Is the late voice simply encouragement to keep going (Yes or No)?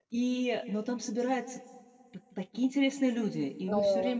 Yes